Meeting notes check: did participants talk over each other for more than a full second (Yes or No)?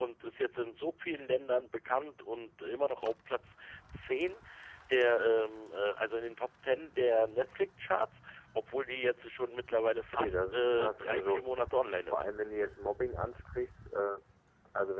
Yes